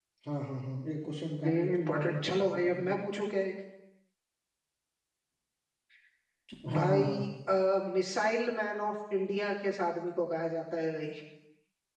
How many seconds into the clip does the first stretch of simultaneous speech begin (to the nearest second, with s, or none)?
1 s